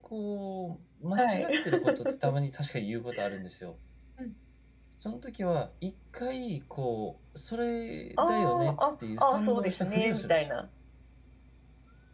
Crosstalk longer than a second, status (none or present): present